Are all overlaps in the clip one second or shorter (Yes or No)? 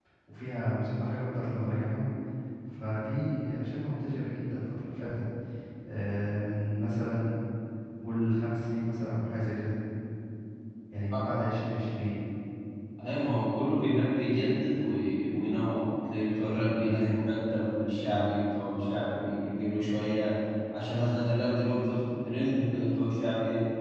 Yes